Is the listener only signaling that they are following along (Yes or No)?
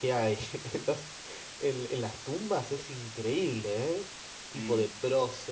Yes